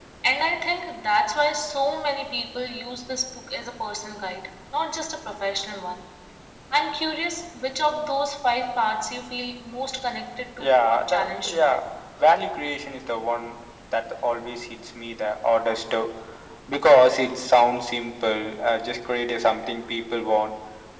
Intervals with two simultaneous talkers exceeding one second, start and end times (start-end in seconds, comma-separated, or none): 10.6-11.8